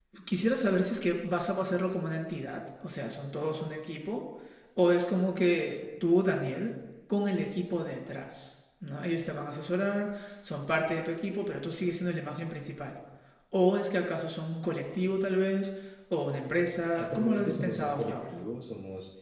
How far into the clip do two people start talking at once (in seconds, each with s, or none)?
16.9 s